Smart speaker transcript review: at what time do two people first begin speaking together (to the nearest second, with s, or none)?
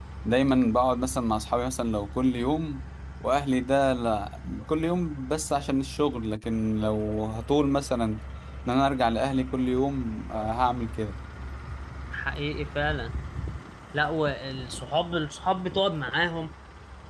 none